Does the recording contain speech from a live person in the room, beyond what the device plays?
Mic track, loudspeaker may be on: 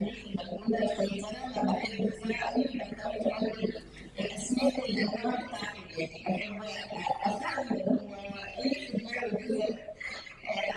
No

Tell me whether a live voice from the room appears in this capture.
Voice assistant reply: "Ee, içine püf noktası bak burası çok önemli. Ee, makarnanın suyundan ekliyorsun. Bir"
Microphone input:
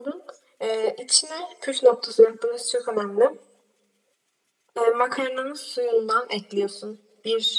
No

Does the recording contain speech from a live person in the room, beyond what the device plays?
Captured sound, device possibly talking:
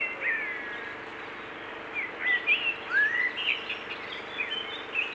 No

